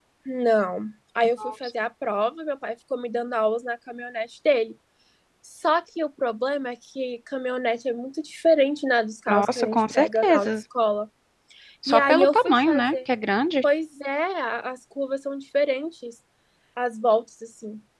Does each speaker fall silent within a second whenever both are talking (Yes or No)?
No